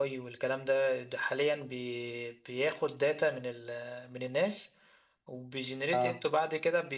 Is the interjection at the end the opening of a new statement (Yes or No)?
No